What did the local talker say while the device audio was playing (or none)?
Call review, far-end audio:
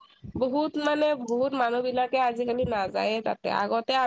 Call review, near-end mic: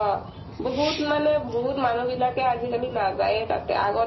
none